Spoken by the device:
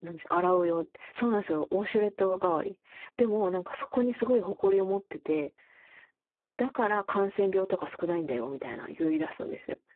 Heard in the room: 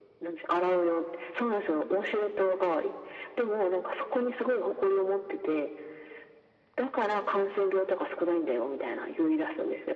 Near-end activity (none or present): none